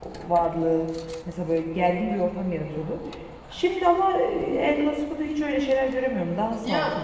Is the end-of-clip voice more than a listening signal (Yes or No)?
Yes